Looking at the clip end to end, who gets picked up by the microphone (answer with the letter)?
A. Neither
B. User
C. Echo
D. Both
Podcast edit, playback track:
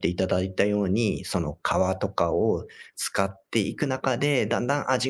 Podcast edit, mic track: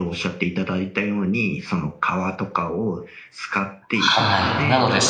D